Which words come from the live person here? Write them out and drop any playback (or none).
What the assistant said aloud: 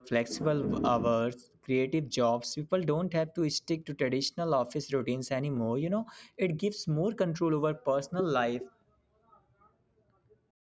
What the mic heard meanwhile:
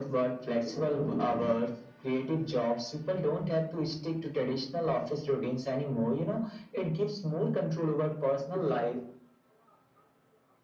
none